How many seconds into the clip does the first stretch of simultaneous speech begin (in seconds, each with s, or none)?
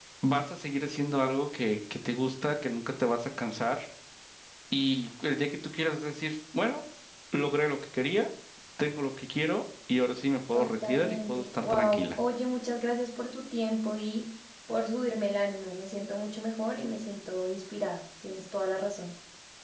10.5 s